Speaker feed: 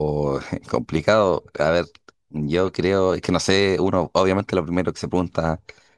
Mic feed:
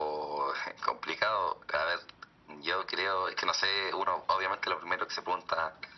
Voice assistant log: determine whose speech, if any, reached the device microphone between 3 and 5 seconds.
echo only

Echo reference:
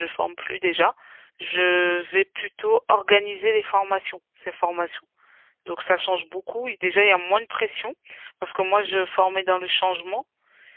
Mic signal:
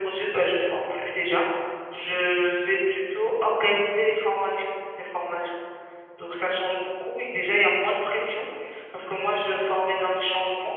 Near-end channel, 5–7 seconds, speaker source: echo only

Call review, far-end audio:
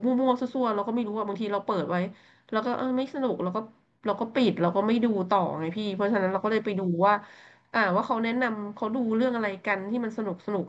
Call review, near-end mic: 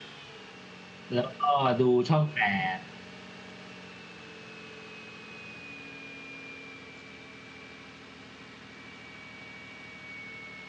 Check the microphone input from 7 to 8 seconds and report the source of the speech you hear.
neither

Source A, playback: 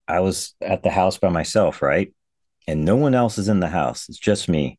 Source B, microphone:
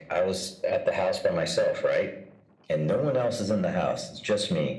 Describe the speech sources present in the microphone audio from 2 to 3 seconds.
echo only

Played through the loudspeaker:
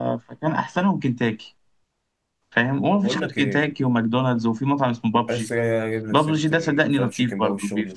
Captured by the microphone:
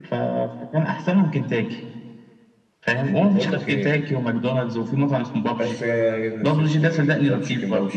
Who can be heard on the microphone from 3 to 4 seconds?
echo only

